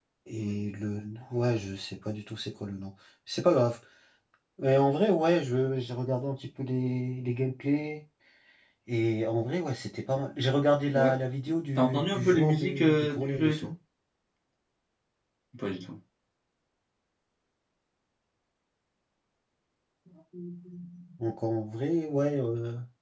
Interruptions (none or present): present